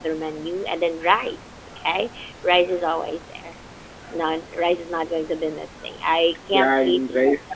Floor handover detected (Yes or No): Yes